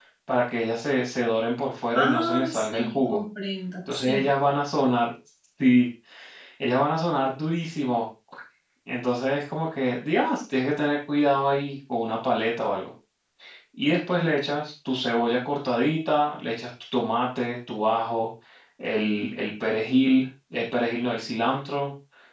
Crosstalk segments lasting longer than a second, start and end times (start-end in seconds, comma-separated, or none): 1.9-3.2